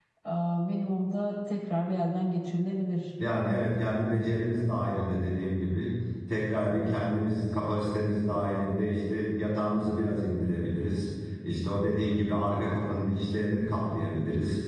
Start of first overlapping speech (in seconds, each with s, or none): none